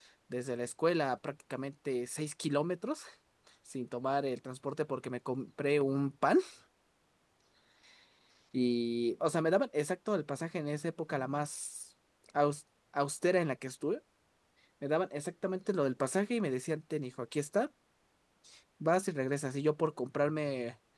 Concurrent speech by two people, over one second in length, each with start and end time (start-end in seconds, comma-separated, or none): none